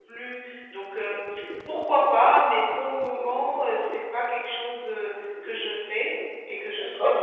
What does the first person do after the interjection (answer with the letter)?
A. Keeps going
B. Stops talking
A